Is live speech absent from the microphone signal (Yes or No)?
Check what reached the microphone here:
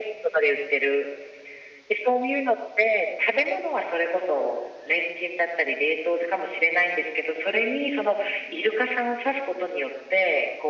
Yes